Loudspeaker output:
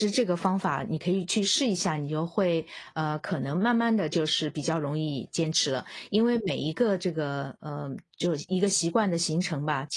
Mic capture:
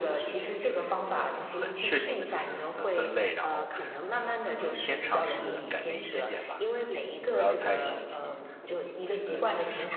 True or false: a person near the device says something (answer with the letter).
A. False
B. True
B